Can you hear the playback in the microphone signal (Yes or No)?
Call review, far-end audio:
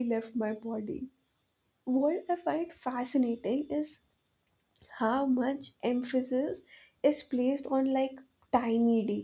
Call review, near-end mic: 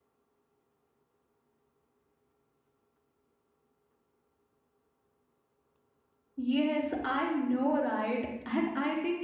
No